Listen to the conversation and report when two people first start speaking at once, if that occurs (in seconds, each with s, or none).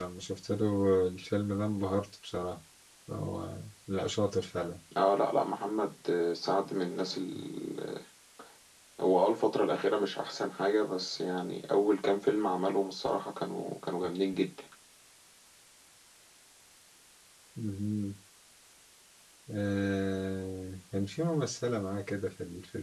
none